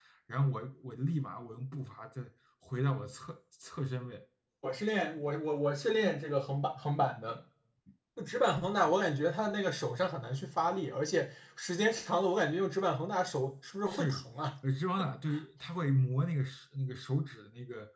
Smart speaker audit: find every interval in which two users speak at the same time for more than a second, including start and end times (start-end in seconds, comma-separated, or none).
none